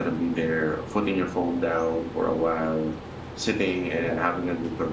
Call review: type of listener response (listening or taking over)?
listening